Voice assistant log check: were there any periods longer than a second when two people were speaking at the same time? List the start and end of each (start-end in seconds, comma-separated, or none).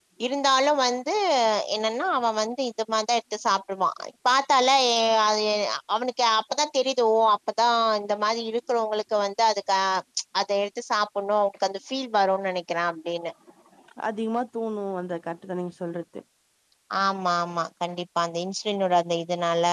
none